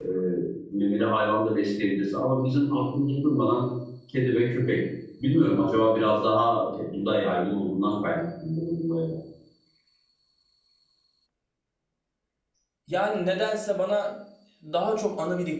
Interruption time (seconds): none

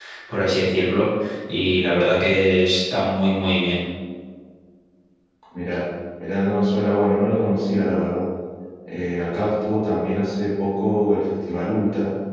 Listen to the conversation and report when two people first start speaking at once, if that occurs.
none

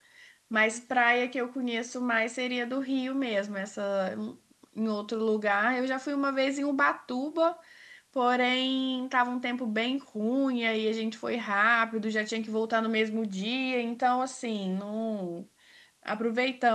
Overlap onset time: none

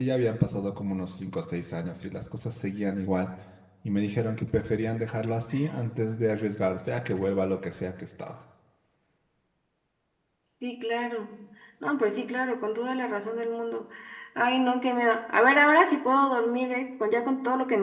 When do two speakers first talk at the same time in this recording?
none

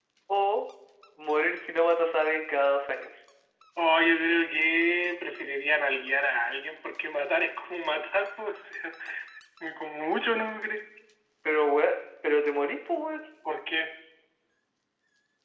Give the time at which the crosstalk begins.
none

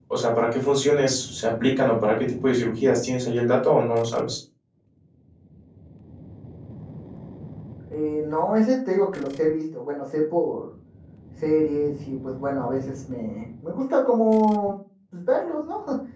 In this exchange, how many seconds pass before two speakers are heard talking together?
none

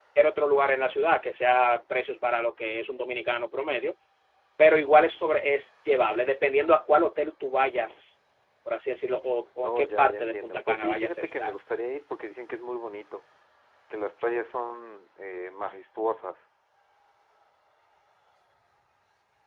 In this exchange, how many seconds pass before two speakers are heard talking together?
9.6 s

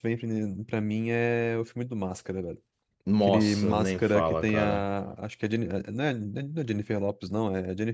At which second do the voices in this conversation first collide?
3.2 s

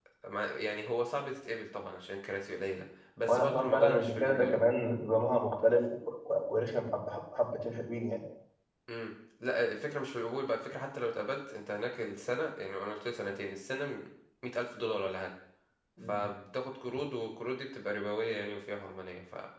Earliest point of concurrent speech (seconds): 3.3 s

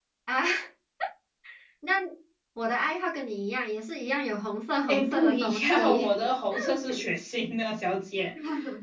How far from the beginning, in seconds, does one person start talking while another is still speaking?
4.9 s

